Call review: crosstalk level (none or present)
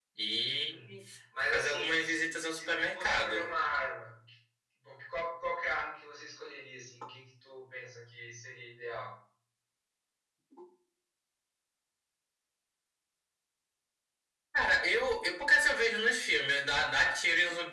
present